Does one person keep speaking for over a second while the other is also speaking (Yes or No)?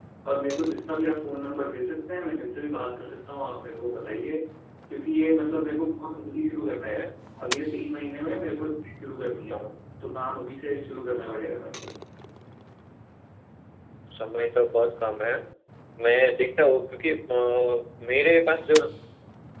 No